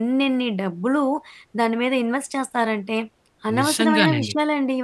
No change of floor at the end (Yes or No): Yes